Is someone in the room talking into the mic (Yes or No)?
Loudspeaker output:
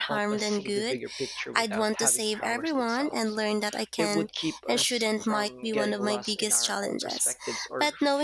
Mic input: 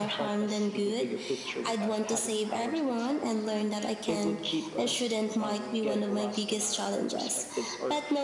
No